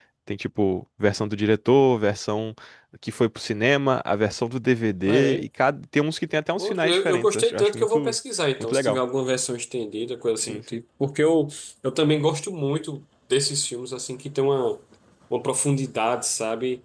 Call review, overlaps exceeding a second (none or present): present